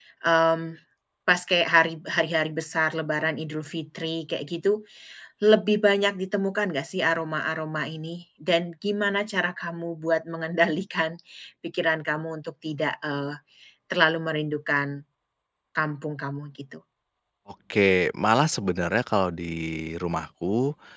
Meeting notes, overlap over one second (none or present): none